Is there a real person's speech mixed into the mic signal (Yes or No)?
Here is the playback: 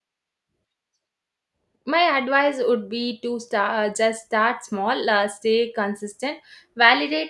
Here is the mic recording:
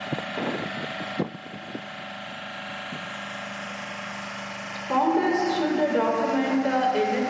Yes